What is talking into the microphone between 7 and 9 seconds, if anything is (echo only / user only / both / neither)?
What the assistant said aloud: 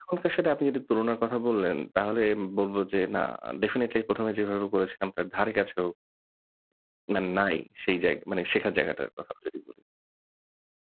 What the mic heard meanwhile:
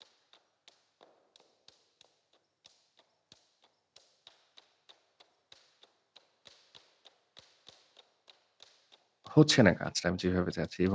neither